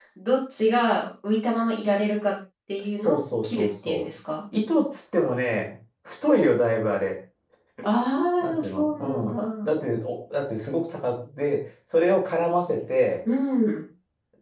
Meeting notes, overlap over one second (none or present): present